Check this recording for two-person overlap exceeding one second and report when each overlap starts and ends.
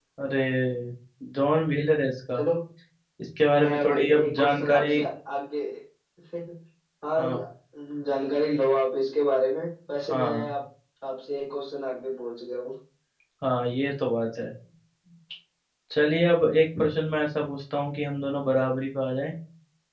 3.6-5.0

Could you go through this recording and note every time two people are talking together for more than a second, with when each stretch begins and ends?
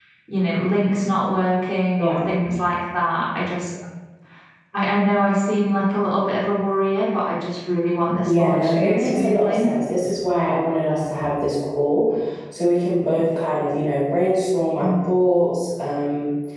8.3-9.7

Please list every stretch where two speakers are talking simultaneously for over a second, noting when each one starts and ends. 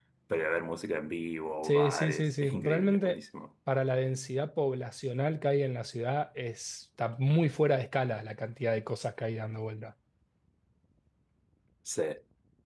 1.6-3.2

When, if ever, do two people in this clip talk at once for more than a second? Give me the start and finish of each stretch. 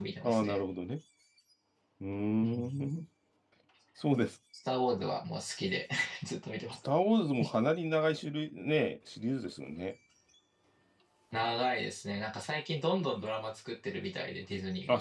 none

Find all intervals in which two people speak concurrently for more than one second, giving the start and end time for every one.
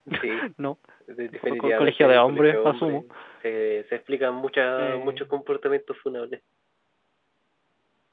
1.4-3.0

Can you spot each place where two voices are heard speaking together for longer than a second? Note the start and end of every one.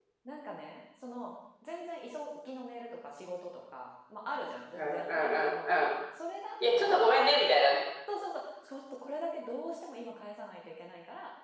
4.7-5.9

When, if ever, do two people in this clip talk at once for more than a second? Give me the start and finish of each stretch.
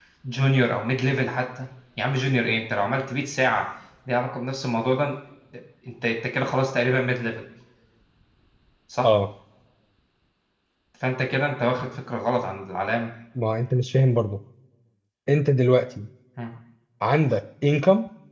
none

